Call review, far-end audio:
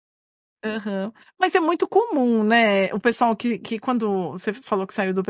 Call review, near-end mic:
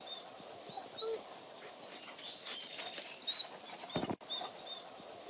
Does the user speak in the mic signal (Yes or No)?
No